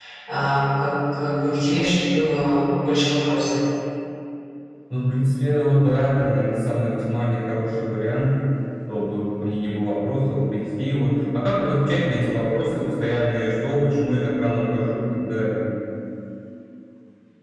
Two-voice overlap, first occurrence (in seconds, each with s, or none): none